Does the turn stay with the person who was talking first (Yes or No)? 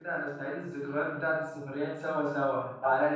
Yes